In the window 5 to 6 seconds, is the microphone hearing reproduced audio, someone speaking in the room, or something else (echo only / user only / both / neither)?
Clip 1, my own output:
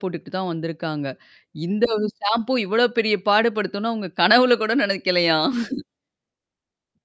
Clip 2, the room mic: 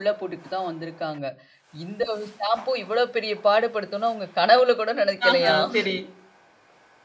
both